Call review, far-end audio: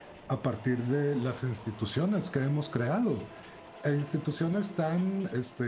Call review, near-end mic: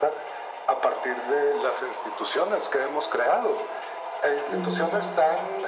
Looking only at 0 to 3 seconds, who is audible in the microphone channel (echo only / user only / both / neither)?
echo only